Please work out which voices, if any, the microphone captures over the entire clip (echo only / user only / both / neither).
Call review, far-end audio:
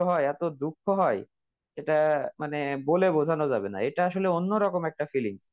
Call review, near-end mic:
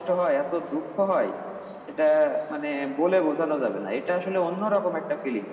echo only